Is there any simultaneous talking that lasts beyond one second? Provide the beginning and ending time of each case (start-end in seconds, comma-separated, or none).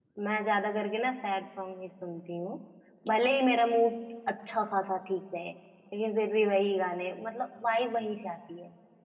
none